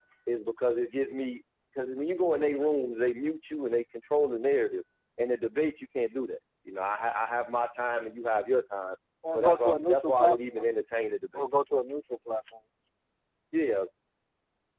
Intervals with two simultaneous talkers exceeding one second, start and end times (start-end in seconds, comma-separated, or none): 9.3-10.7